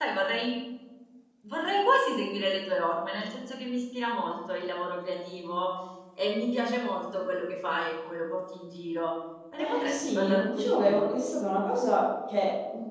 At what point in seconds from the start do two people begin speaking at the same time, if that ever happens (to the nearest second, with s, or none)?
10 s